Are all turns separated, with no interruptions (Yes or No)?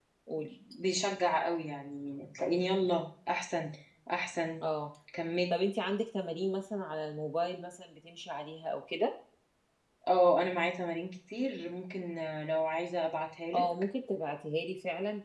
Yes